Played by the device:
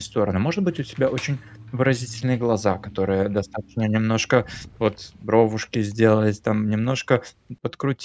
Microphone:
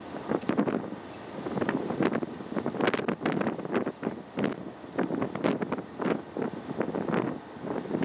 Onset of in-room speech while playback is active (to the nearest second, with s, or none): none